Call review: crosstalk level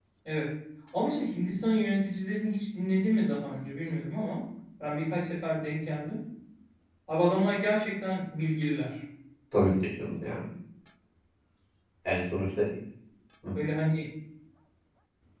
none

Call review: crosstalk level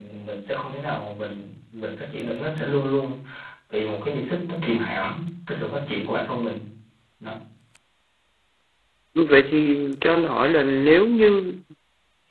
none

